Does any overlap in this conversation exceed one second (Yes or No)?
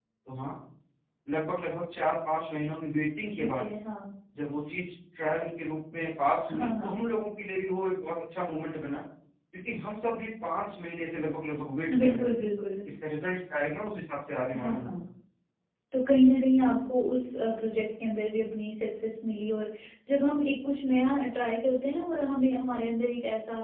No